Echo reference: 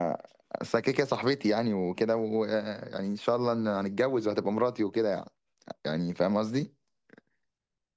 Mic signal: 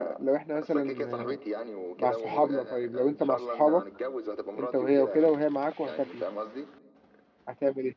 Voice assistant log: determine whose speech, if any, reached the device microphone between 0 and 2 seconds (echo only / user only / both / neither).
both